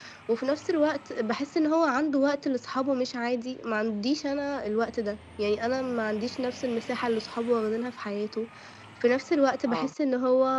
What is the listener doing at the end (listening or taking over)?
listening